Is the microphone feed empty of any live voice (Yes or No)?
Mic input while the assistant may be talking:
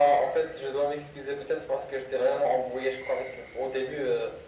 Yes